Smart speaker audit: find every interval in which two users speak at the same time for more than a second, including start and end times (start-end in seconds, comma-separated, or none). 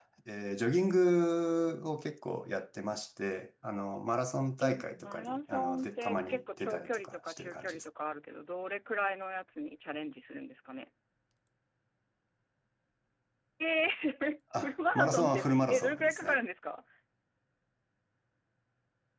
4.6-7.8, 14.6-16.4